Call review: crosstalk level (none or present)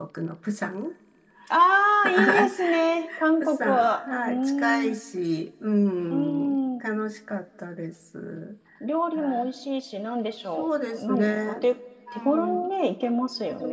present